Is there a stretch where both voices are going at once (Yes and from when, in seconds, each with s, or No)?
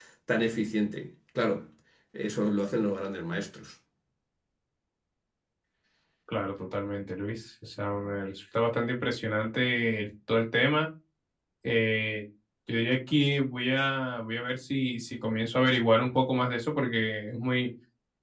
No